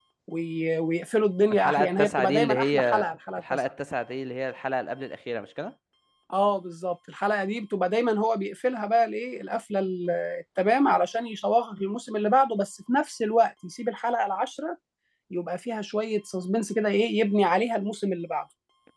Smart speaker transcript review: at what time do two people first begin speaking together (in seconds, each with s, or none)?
1.5 s